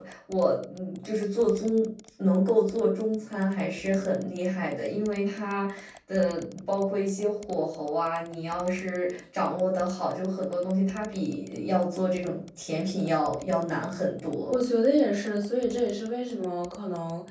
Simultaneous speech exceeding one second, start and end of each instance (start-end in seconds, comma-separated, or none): none